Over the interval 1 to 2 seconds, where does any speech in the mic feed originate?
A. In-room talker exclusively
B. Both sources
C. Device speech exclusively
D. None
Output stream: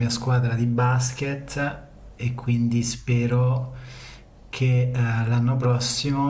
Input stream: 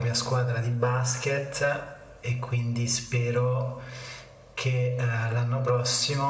C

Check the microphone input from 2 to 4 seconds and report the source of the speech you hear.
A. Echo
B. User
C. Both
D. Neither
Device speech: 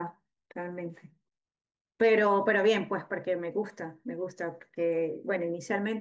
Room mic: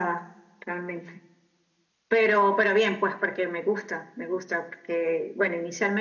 A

